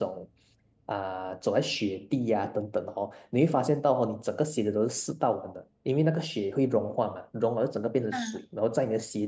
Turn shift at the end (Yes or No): No